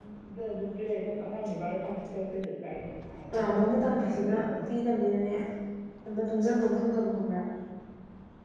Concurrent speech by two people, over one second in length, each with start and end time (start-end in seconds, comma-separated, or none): 3.4-4.6